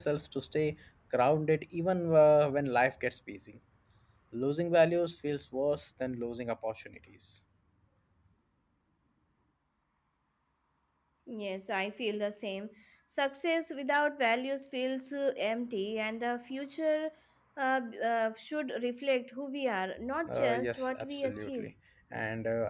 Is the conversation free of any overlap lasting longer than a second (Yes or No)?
No